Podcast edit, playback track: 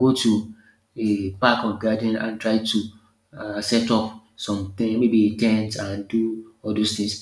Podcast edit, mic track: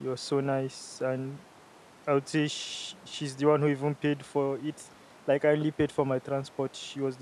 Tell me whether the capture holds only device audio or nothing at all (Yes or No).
No